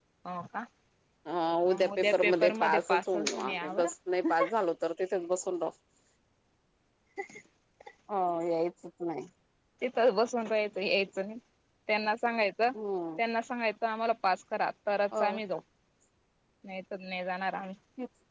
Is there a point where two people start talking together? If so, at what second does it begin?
2 s

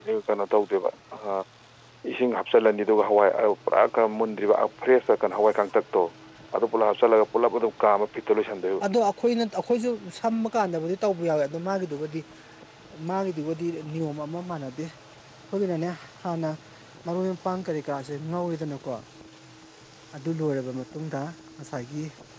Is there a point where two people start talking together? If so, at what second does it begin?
none

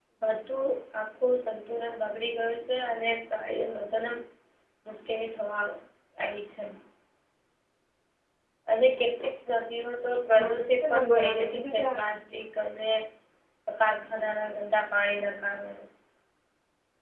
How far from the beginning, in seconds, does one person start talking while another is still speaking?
10 s

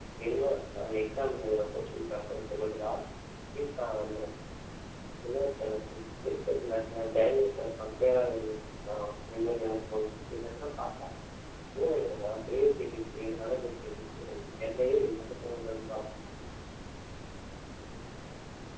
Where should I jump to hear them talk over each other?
none

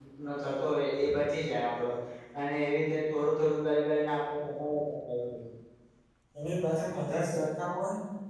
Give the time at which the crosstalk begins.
none

